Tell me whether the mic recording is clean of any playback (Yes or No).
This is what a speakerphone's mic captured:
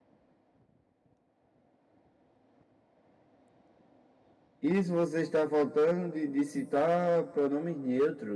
Yes